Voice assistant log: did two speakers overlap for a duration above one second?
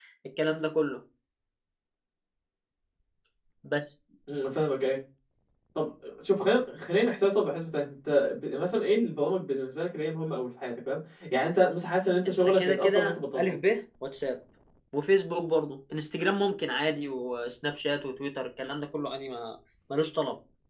Yes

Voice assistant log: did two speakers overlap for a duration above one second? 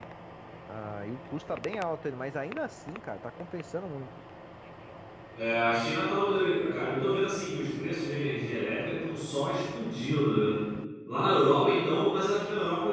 No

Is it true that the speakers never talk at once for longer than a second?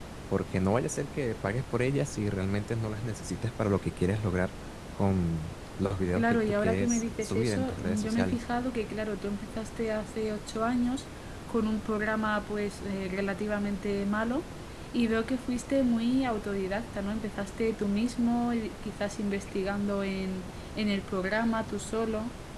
No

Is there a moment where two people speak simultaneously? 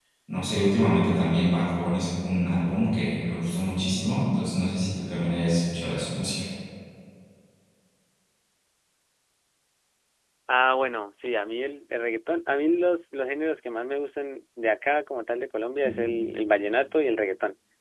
No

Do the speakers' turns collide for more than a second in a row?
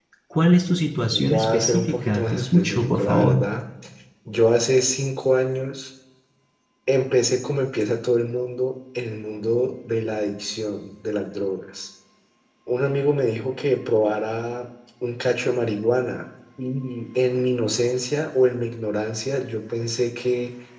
Yes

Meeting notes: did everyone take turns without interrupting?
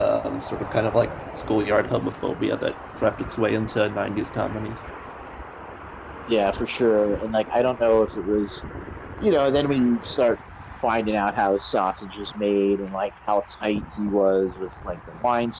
Yes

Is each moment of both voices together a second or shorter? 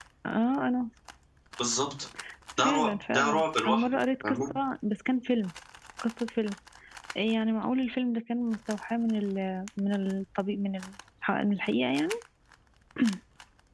No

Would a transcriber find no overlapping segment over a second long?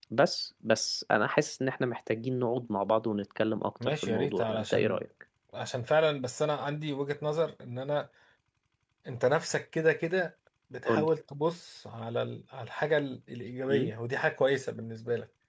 No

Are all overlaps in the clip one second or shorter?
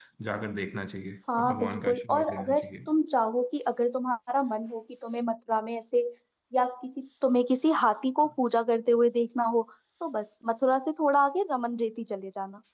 No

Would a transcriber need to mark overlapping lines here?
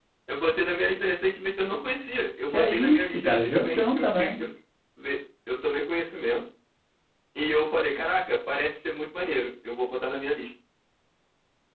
Yes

